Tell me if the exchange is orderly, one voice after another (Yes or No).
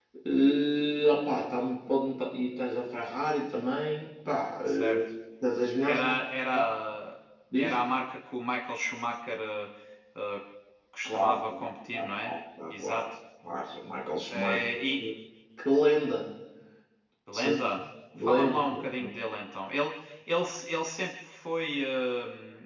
No